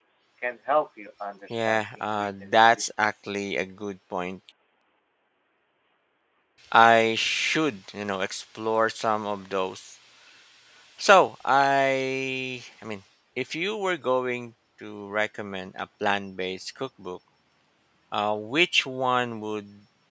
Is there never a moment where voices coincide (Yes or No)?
No